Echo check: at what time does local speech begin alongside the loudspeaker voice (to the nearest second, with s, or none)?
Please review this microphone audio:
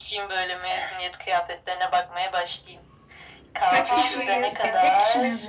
4 s